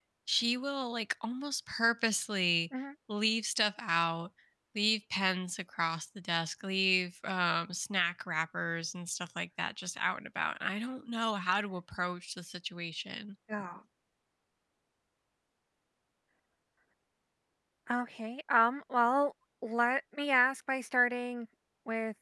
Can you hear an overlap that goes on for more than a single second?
No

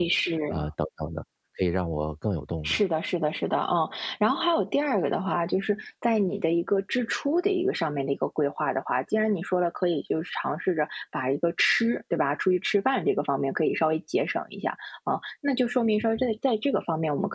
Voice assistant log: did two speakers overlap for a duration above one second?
No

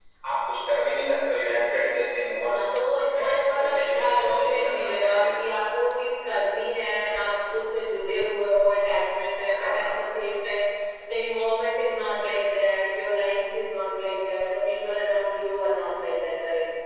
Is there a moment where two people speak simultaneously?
Yes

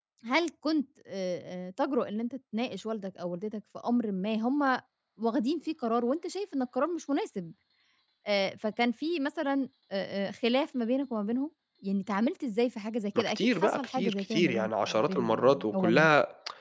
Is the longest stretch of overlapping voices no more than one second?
No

